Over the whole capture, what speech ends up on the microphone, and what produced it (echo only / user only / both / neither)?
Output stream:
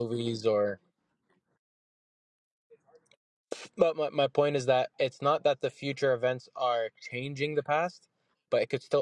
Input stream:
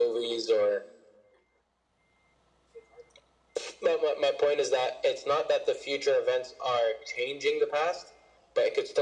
echo only